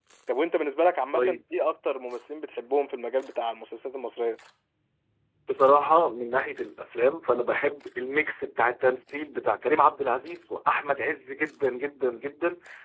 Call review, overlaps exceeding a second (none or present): none